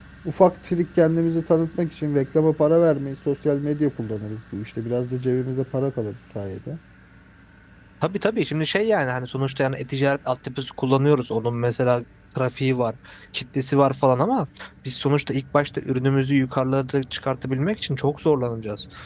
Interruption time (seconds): none

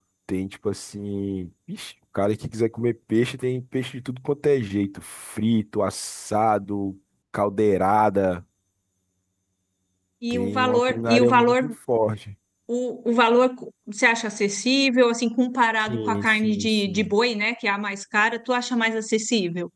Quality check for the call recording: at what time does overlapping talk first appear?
10.3 s

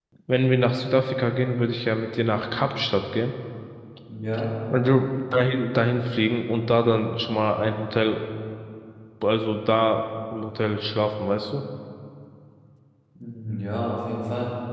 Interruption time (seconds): none

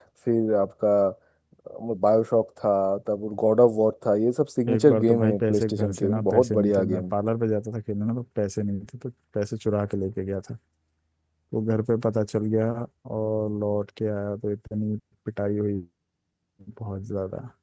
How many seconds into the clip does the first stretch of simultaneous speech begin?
4.7 s

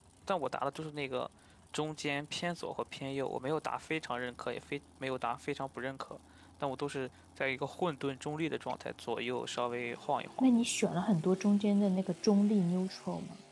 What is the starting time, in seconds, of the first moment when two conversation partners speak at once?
none

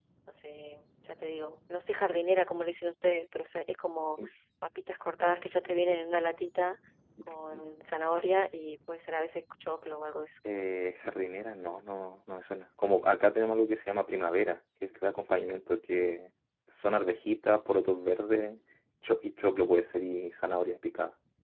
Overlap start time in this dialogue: none

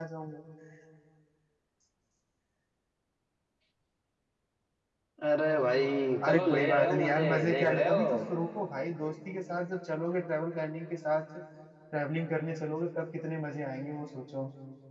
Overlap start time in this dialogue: 6.2 s

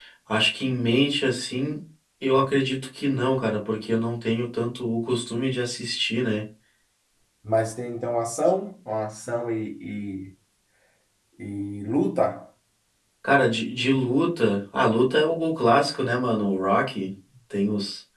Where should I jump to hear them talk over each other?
none

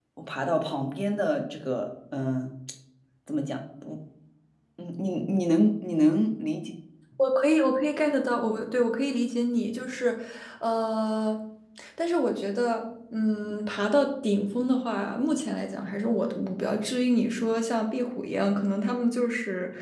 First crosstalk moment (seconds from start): none

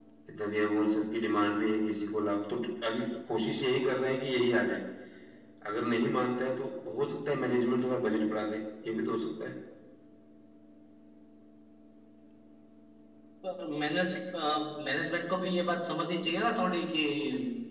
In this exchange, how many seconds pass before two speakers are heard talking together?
none

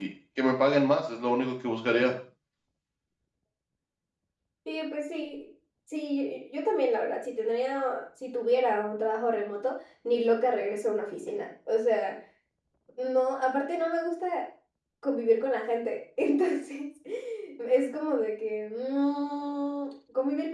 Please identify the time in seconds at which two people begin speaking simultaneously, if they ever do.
none

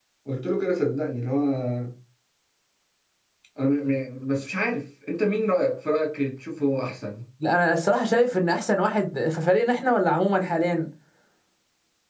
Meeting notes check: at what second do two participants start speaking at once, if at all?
none

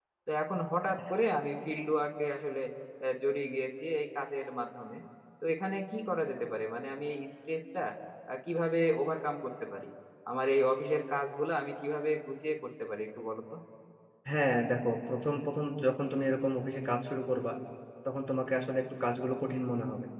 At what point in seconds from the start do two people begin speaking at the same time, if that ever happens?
none

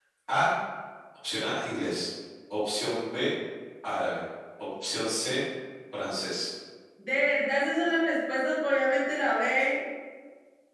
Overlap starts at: none

